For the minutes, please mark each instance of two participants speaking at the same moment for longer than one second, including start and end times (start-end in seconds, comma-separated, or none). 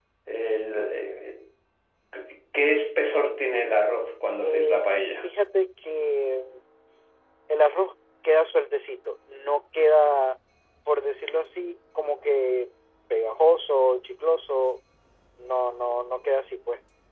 none